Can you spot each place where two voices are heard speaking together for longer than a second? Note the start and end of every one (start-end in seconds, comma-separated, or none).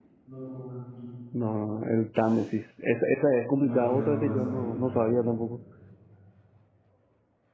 3.6-5.2